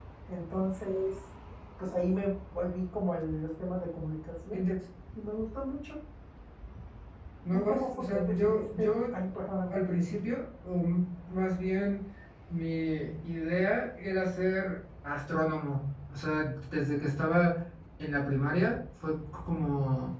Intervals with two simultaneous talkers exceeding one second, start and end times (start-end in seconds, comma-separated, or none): 7.5-8.9